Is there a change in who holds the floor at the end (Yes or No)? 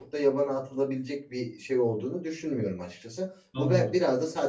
No